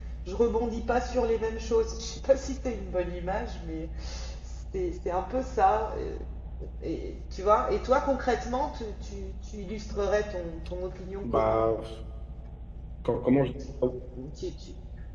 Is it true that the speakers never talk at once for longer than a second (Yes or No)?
Yes